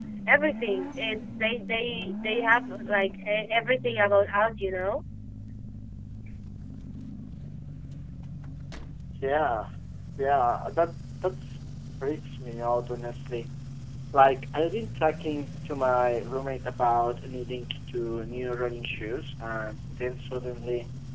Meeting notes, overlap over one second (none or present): none